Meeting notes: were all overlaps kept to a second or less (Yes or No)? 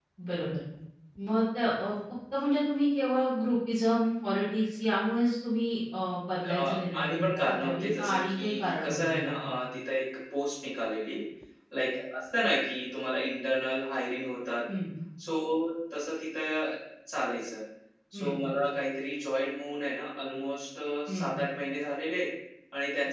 No